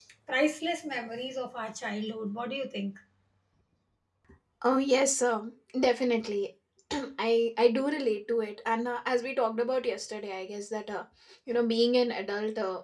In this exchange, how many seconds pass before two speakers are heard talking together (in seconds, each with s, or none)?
none